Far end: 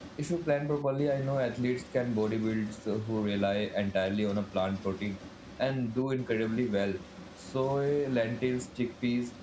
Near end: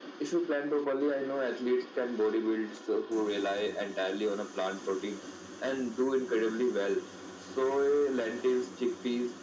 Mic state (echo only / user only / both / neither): echo only